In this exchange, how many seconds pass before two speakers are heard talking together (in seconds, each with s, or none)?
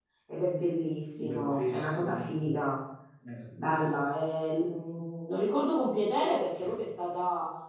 1.2 s